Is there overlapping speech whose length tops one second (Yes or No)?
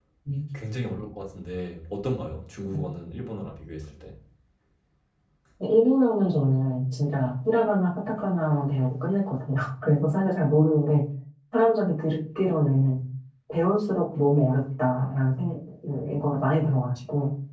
No